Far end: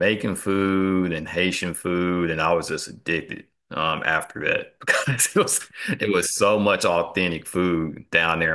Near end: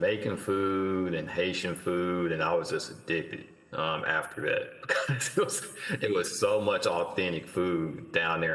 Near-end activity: none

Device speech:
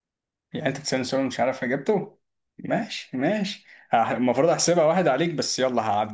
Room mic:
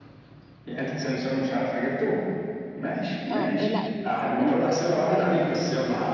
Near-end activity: present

